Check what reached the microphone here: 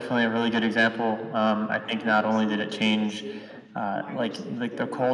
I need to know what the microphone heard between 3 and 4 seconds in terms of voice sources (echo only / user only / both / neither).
both